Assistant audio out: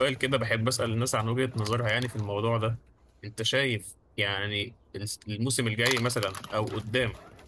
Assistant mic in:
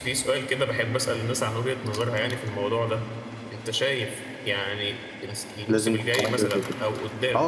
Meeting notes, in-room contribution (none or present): present